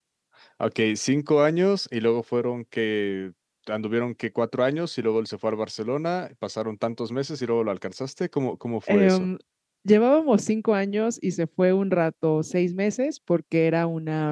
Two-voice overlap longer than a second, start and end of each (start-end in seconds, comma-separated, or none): none